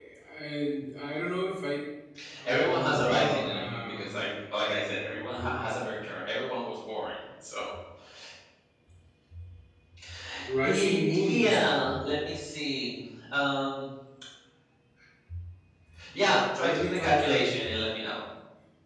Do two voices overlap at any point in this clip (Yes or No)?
Yes